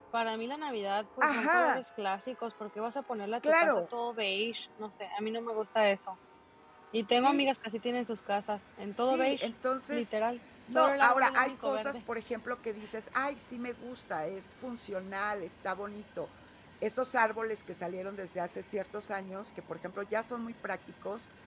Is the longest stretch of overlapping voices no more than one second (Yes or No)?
No